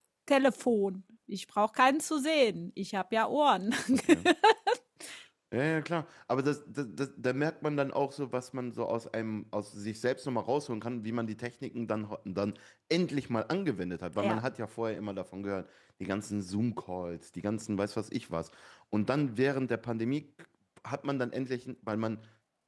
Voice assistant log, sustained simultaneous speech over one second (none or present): none